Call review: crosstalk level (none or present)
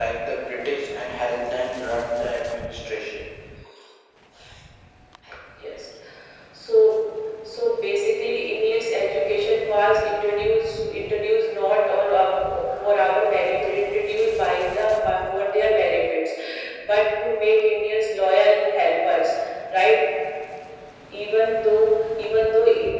none